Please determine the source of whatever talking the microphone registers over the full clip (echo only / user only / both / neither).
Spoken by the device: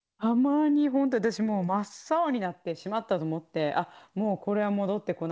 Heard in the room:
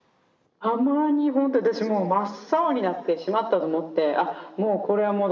echo only